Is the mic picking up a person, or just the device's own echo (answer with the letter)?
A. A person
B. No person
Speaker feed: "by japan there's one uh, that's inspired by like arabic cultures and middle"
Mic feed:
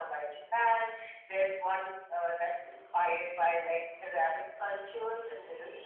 B